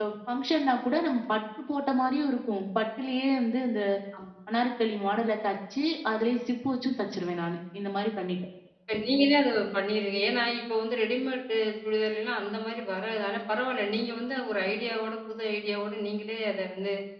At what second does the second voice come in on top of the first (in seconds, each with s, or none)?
none